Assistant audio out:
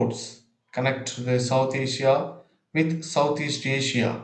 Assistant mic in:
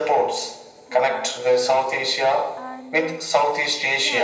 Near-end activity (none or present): present